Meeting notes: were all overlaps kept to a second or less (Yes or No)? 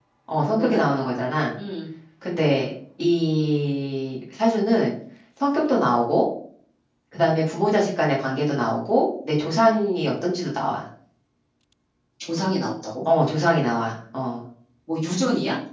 Yes